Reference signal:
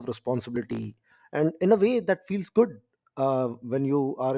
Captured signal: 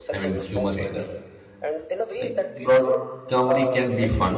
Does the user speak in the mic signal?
Yes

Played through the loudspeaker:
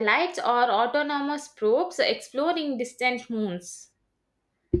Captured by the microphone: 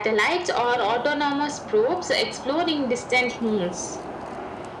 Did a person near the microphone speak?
No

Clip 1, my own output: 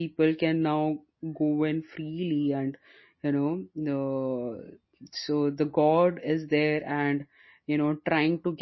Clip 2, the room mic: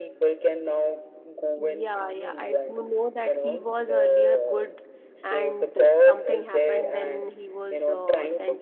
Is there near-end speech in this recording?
Yes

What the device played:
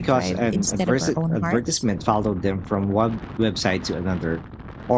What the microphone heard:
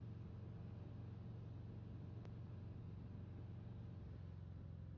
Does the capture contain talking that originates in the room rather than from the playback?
No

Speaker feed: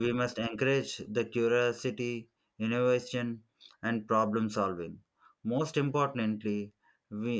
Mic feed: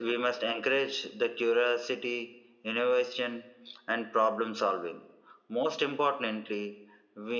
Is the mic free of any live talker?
Yes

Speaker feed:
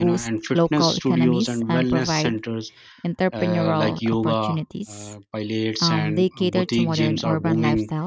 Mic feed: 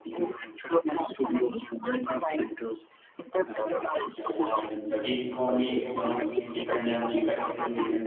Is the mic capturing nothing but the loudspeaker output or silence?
No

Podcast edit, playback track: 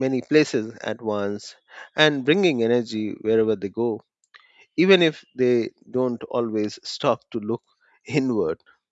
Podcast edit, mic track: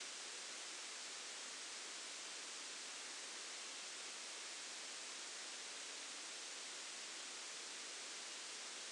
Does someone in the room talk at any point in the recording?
No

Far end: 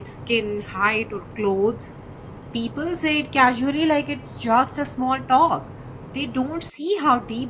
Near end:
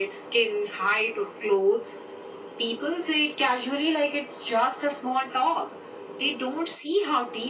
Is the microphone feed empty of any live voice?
Yes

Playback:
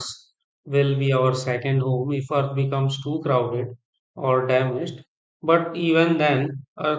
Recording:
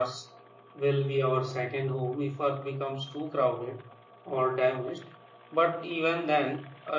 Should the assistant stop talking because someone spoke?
No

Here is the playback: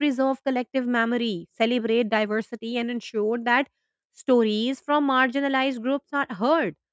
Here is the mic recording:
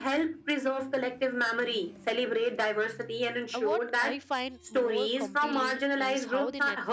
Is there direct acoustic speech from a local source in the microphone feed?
Yes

